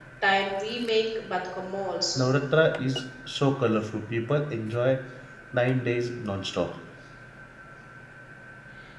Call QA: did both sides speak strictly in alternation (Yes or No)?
Yes